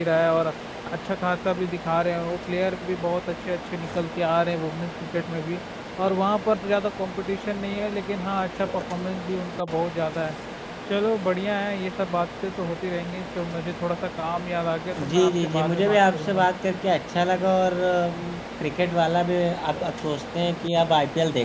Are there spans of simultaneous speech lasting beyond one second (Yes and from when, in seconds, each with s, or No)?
Yes, from 15.0 s